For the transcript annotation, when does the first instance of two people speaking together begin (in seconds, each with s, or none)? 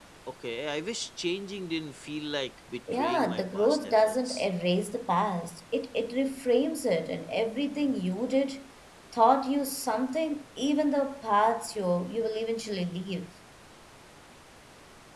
2.9 s